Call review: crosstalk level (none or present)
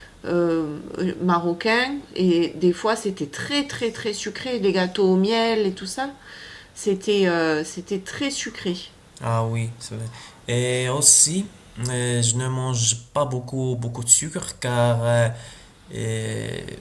none